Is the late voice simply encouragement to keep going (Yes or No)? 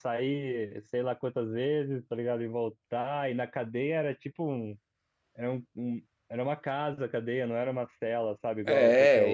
No